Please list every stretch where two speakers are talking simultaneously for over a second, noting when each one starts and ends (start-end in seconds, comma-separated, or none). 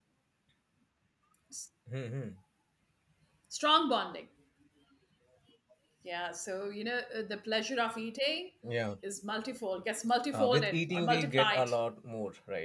10.3-11.7